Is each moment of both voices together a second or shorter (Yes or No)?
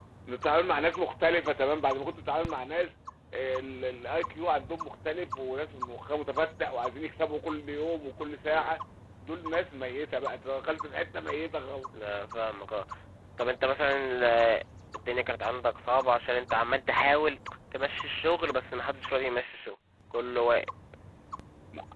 Yes